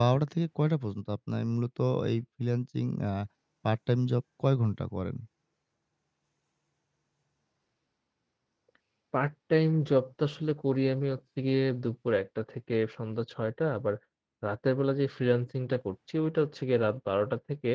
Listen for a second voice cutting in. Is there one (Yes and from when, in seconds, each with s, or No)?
No